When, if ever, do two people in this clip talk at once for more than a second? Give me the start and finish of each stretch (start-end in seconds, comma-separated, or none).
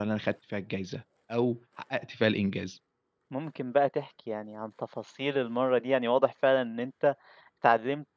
none